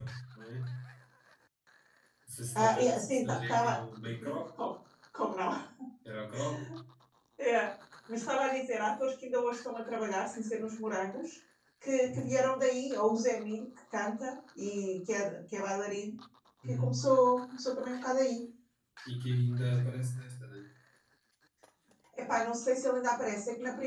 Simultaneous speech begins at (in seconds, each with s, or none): 2.5 s